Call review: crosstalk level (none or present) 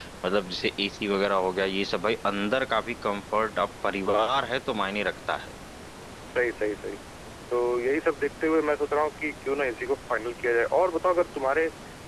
none